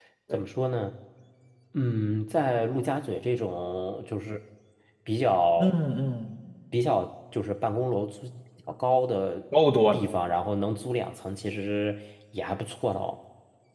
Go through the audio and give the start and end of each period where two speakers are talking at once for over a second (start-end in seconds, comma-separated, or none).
none